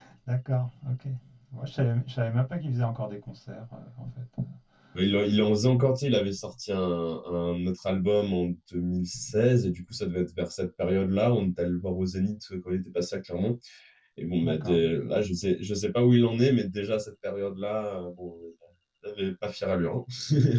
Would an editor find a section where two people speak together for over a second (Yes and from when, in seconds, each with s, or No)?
No